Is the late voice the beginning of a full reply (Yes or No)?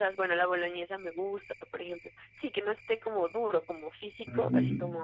Yes